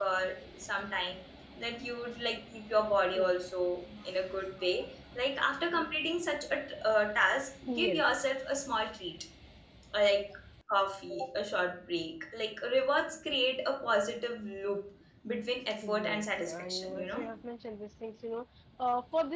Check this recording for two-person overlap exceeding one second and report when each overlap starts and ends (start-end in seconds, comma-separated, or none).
15.9-17.2